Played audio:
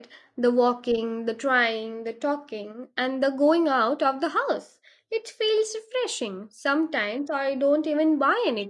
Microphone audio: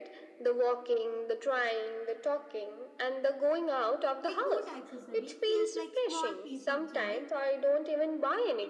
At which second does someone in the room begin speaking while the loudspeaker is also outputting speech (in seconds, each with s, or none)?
4.2 s